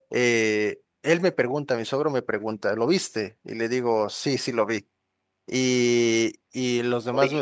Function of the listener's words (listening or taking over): listening